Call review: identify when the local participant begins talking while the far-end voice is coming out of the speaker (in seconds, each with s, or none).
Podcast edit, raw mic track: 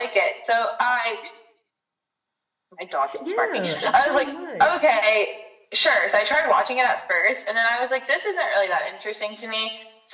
3.0 s